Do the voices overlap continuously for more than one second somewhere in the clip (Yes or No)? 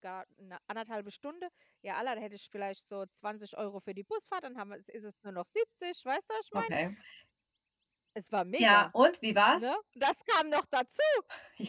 No